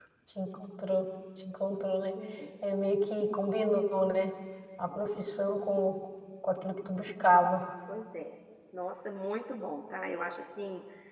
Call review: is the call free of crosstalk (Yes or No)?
Yes